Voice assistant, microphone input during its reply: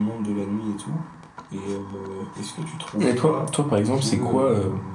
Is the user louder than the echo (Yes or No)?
Yes